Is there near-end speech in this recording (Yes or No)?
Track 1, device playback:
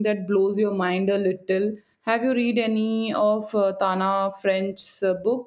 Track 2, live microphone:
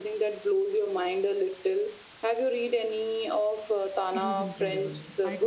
Yes